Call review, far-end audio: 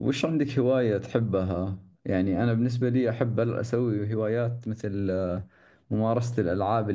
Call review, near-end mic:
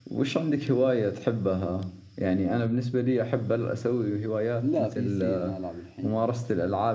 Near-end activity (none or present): present